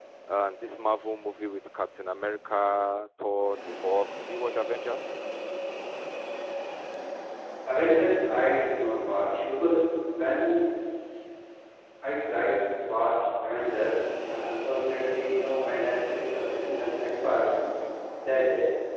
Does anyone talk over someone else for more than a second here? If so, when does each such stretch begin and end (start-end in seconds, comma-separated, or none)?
none